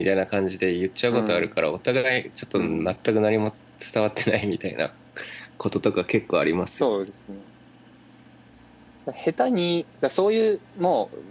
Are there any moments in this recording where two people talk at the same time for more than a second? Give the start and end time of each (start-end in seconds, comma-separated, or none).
none